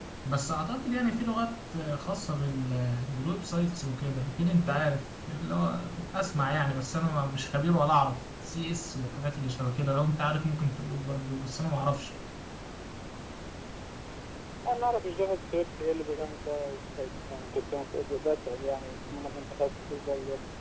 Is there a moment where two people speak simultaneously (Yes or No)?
No